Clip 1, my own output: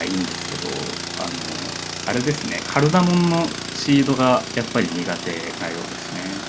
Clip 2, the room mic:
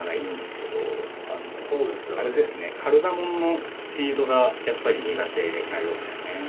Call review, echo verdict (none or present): present